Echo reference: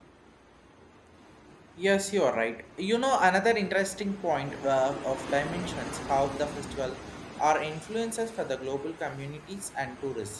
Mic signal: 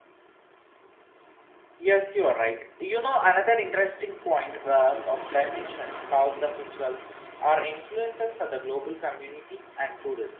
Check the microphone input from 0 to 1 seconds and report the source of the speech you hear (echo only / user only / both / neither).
neither